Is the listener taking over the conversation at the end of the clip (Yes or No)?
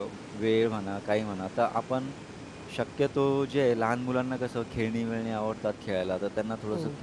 No